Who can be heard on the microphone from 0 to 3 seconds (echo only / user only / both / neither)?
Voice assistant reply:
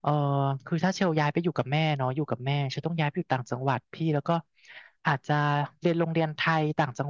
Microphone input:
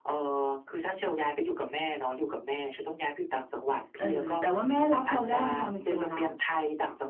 echo only